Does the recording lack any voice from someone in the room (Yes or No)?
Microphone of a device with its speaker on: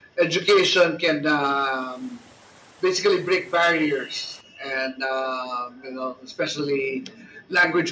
Yes